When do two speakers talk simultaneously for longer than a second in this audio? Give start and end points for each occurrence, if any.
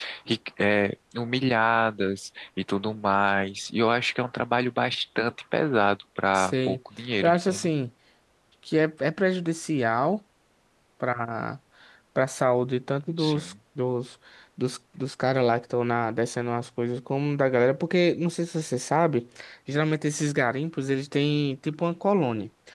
none

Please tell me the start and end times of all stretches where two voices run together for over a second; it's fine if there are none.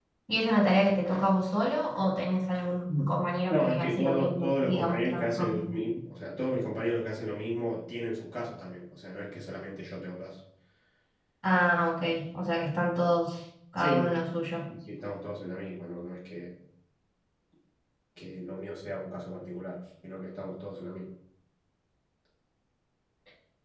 3.5-5.7

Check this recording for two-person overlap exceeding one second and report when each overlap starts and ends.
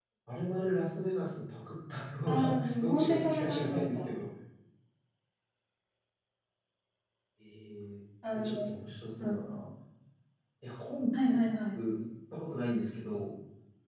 2.3-4.0

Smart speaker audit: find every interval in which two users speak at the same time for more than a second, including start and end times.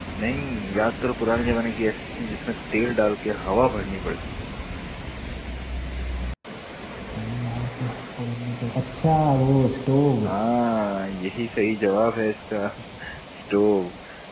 none

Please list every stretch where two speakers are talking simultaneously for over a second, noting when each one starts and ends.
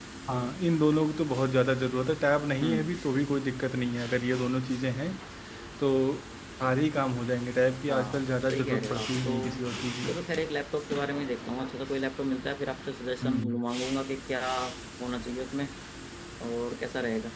7.9-9.6

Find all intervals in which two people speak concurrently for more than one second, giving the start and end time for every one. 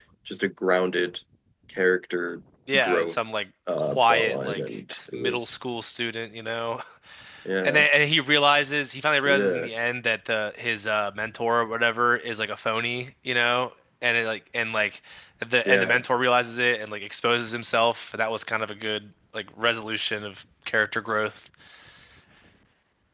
3.8-5.6

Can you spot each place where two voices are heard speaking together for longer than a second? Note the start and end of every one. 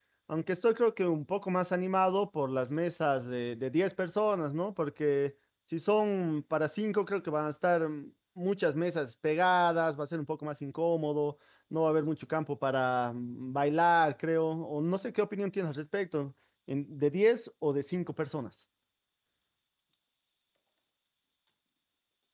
none

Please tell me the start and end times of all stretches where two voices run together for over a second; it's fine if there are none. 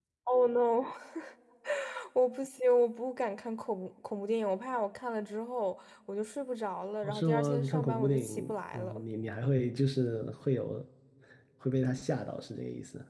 7.0-9.0

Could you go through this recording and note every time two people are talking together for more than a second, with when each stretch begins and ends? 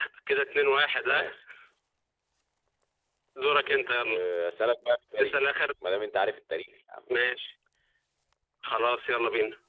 none

